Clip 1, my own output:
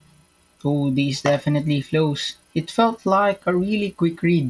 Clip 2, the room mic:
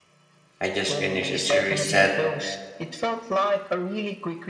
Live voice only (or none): I just finished a series set